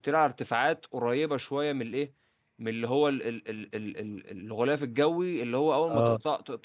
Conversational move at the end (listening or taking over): listening